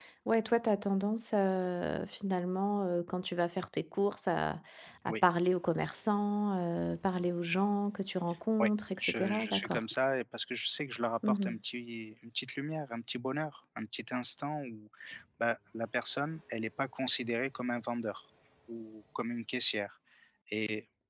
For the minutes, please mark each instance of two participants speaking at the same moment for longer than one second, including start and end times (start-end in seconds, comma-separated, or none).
8.6-9.8